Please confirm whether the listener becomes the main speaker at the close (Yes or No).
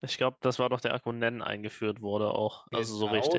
Yes